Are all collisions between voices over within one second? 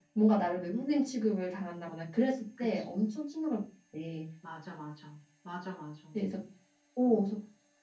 Yes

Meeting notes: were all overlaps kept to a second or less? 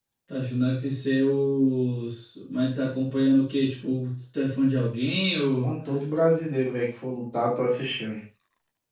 Yes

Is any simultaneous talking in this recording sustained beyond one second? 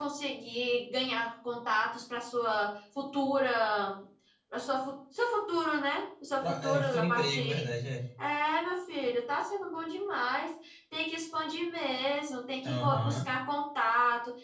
Yes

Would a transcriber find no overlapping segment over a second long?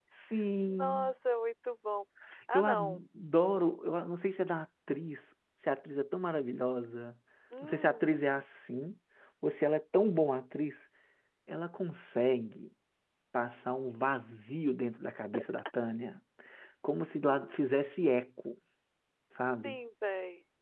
Yes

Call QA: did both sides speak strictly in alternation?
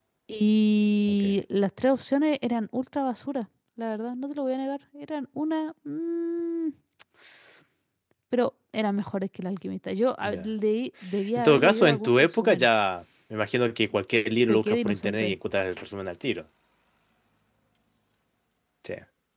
No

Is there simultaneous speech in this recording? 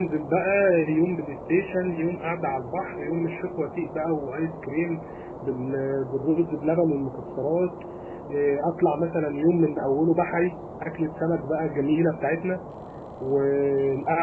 No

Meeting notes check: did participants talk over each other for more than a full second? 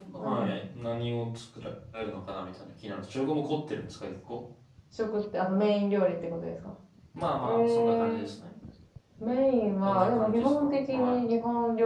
Yes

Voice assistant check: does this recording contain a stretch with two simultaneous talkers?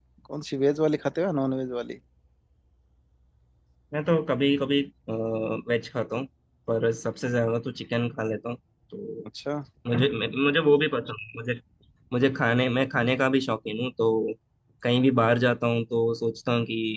No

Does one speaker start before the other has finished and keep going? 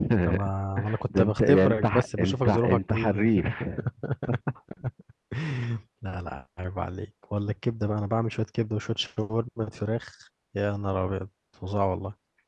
Yes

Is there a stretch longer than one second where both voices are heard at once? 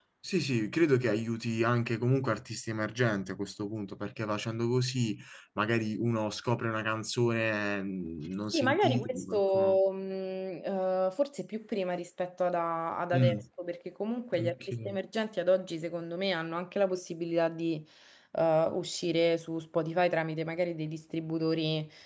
Yes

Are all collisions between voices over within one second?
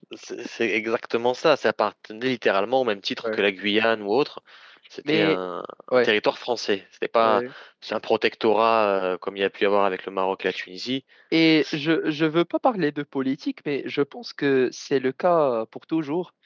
Yes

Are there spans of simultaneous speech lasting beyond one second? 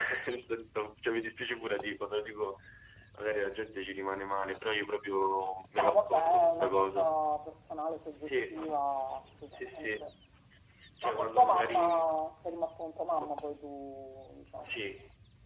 Yes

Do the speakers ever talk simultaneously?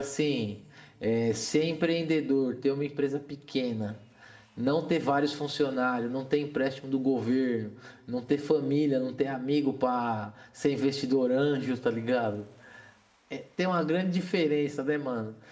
No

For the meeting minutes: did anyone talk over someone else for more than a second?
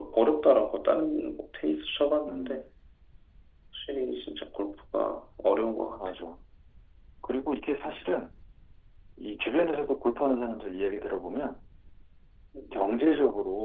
No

